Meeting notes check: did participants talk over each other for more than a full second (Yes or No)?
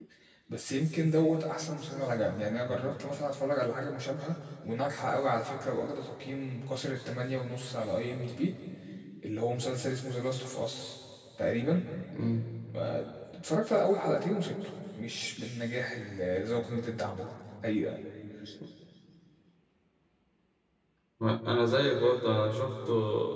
No